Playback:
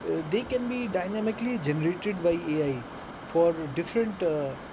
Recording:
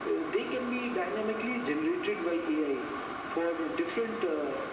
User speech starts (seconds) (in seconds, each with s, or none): none